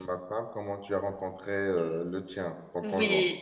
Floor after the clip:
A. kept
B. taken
B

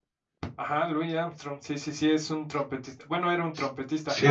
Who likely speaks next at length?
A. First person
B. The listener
B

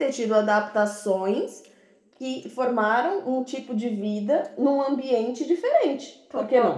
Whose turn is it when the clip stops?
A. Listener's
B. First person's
A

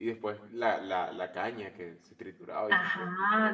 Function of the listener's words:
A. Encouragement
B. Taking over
B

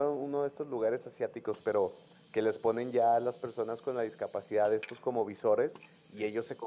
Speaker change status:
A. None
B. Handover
A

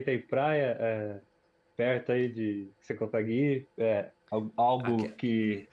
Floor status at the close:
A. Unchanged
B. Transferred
A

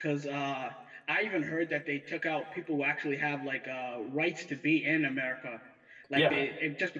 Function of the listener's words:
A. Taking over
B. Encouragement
B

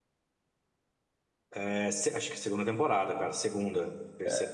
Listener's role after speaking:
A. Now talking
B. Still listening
A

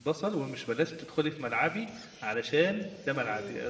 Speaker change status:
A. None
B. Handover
A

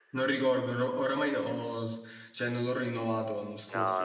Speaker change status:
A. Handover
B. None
A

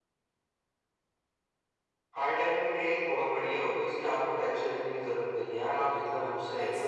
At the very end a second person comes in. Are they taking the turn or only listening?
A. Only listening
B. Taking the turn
B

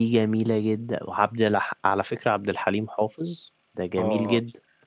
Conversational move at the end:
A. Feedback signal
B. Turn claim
B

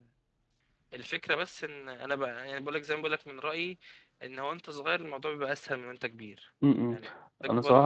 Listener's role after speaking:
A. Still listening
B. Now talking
B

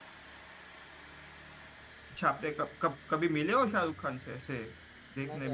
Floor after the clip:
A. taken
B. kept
A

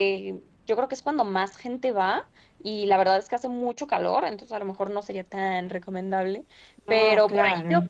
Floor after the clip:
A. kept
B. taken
A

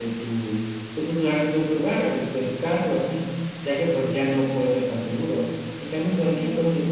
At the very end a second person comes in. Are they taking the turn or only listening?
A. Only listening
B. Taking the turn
A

